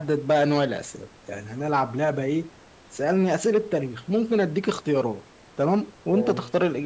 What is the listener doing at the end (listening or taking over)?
listening